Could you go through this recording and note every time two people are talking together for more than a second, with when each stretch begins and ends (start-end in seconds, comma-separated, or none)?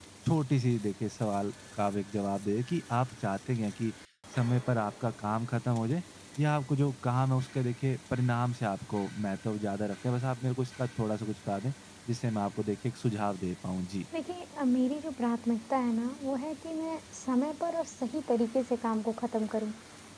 none